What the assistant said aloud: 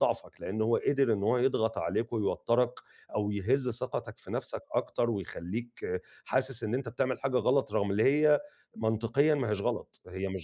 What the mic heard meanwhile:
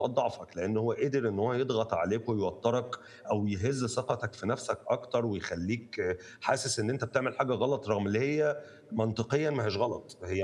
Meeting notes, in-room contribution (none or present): none